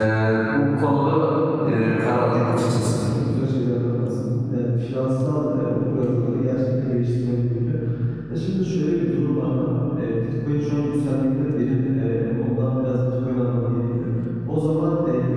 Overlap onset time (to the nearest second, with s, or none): 2 s